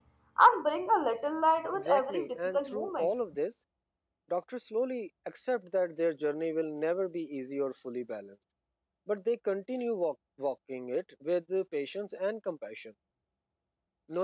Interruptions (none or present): present